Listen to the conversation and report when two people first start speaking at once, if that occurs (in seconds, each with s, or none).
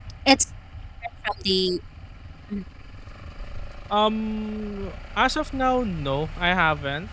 none